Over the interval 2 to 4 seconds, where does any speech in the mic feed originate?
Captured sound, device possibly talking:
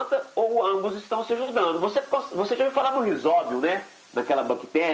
echo only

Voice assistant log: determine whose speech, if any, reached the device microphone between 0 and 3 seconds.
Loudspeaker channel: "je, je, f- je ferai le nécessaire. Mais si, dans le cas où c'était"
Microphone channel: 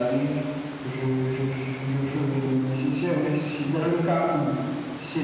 echo only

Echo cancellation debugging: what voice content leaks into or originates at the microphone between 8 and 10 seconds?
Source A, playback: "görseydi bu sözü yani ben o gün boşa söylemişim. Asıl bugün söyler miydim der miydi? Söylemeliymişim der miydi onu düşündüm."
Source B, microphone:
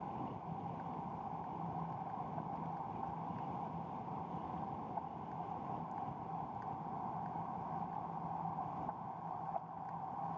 neither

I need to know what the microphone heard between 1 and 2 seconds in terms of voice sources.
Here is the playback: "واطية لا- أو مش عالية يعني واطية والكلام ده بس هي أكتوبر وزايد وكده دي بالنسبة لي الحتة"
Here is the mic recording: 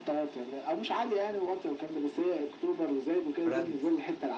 echo only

